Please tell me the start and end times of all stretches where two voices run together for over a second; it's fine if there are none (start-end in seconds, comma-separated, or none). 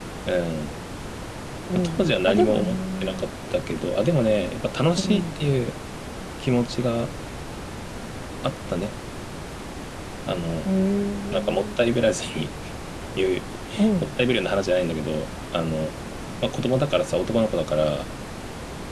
1.7-3.2